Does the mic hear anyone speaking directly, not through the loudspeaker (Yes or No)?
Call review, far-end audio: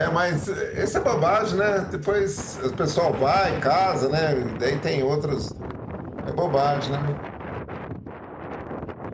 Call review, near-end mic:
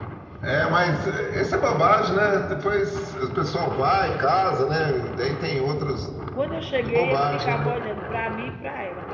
Yes